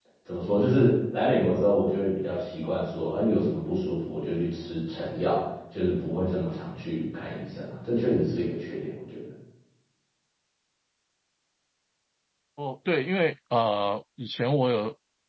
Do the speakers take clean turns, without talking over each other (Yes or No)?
Yes